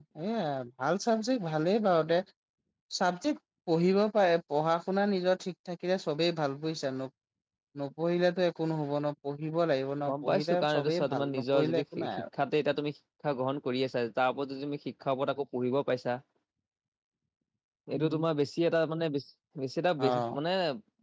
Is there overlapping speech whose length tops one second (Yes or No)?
Yes